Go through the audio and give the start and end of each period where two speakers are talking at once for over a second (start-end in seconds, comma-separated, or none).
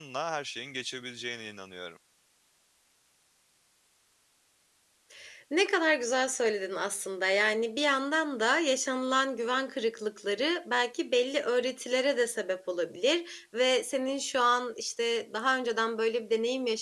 none